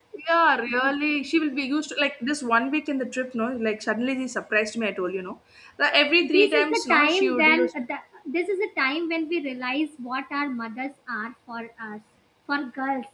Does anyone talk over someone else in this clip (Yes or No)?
Yes